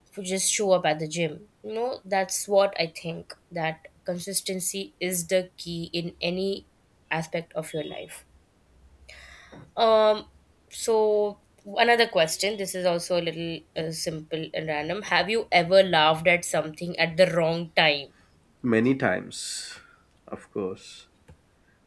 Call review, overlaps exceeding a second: none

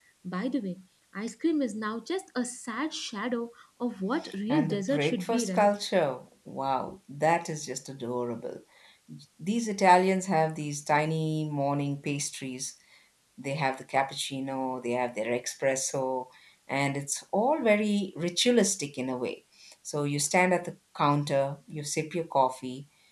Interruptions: present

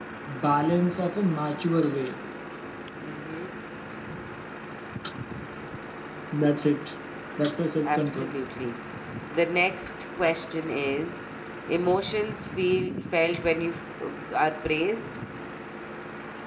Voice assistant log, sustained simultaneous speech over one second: none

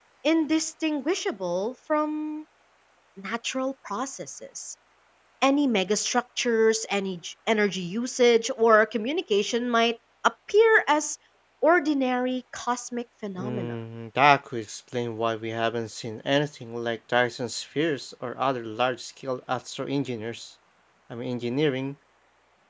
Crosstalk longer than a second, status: none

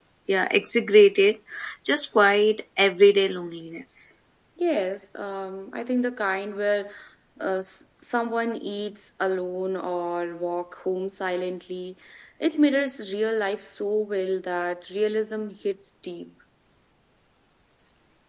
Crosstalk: none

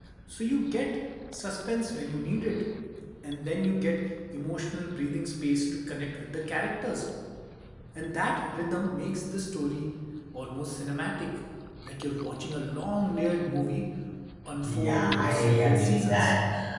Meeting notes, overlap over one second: present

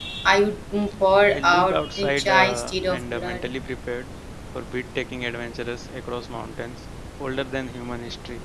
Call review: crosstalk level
present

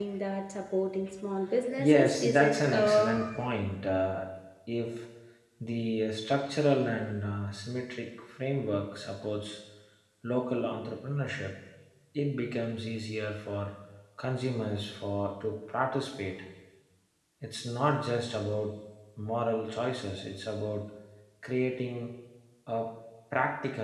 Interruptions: present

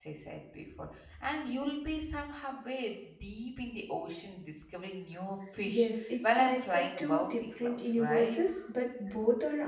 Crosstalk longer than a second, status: present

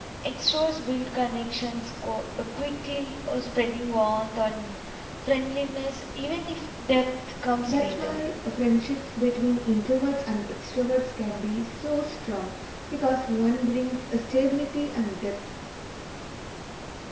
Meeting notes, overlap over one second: none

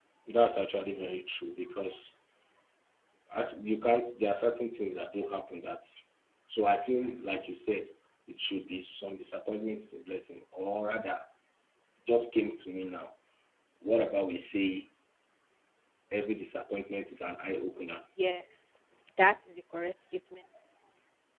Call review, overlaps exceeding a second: none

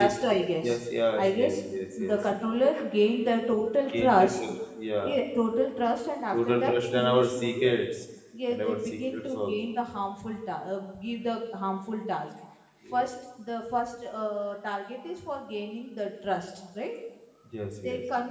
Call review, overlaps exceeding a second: present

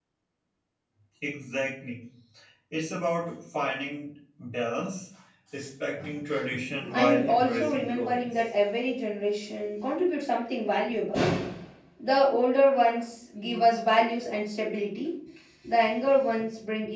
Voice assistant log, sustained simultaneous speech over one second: present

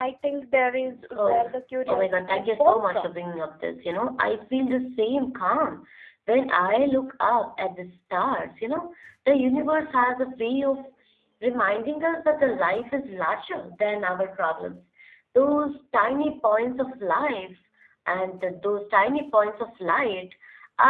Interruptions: present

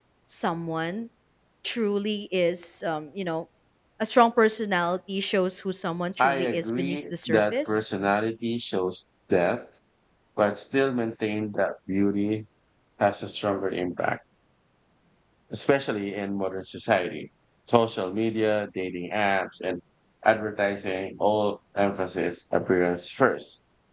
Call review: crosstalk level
present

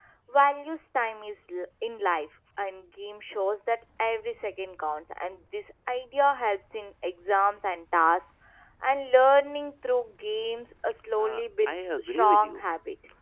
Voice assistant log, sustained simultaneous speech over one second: present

